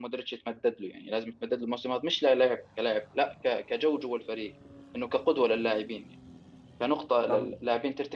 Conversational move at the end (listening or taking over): listening